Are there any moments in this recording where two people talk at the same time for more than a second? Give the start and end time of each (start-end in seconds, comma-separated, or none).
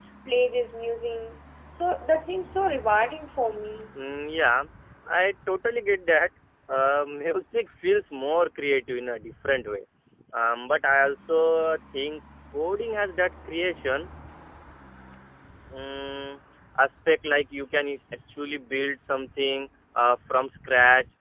none